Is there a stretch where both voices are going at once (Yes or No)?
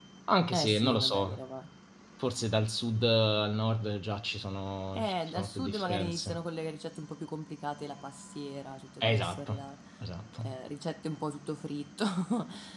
Yes